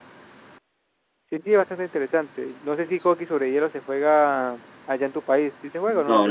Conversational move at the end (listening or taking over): taking over